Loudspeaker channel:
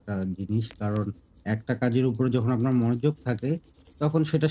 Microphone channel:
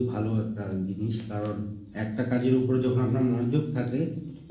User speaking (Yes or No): No